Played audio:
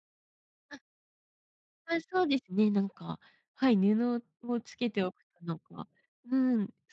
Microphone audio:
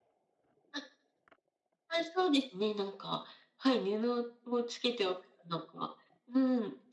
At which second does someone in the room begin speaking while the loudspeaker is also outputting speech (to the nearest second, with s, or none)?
none